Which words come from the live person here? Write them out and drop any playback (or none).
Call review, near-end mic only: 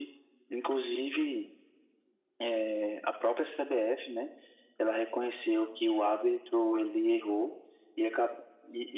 none